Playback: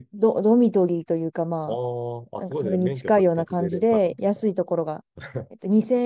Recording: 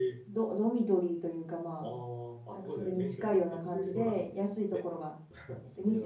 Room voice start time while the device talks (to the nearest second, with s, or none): 4 s